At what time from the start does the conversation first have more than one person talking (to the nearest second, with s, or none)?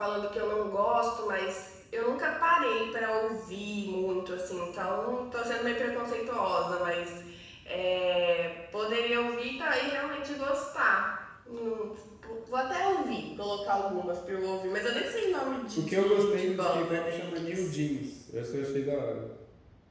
16 s